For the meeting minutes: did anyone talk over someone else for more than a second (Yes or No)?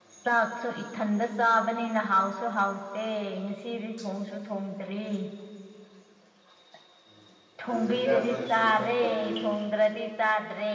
Yes